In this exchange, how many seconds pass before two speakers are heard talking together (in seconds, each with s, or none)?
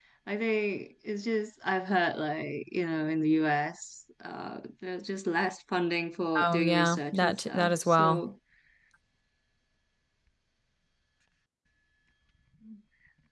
6.3 s